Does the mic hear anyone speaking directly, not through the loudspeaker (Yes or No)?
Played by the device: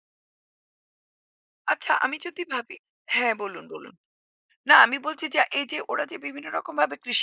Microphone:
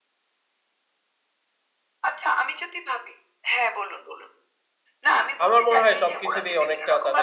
Yes